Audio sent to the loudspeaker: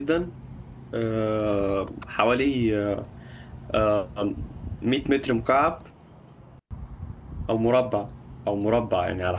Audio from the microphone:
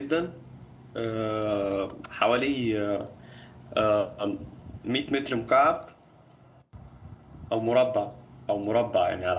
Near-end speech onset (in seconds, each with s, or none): none